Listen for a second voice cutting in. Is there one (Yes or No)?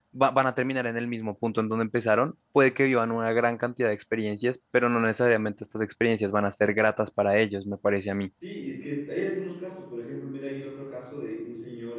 No